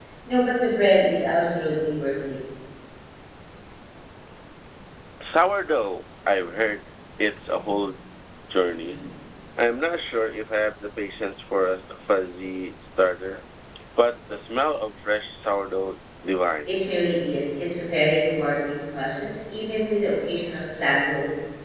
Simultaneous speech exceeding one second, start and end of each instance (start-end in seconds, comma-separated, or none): none